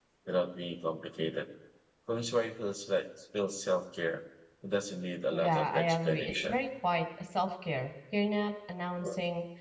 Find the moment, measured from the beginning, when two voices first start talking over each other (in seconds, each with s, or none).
5.3 s